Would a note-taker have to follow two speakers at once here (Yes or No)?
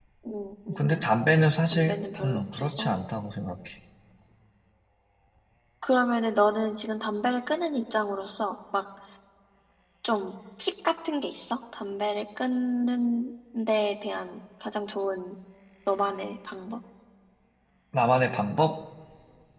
Yes